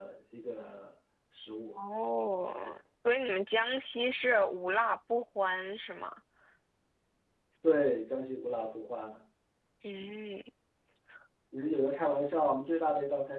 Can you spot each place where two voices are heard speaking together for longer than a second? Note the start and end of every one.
none

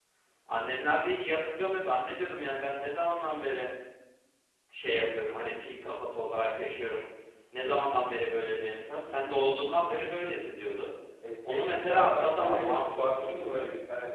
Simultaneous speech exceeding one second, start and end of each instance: 11.4-13.6

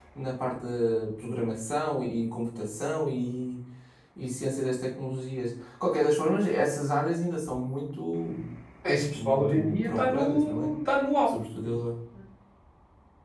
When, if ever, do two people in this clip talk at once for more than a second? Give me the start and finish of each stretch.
9.1-10.7

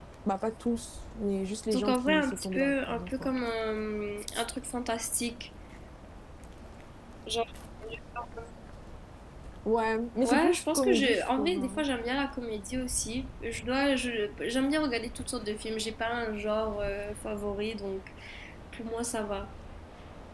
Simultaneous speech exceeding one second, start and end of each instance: 1.7-3.3, 10.2-11.8

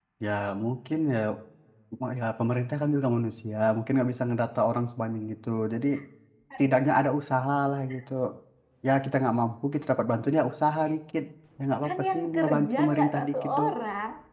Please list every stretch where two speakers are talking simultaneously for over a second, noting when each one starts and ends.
11.8-13.7

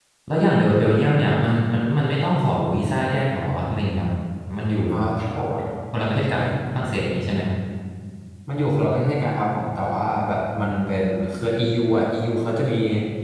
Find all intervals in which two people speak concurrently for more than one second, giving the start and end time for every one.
none

